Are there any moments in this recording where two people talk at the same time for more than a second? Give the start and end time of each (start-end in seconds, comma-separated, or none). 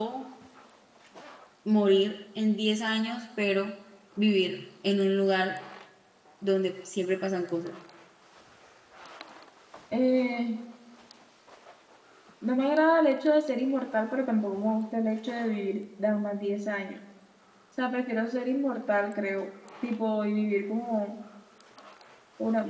none